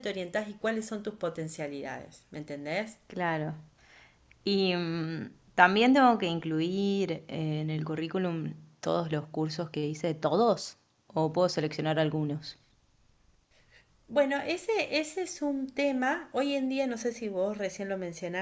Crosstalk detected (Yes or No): No